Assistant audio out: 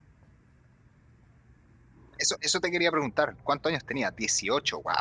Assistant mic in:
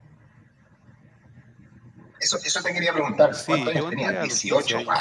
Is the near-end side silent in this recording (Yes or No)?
No